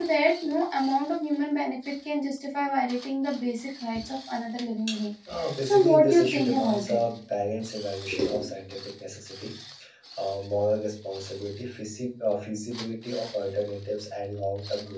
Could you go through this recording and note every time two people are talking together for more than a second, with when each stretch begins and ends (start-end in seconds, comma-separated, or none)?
5.6-7.0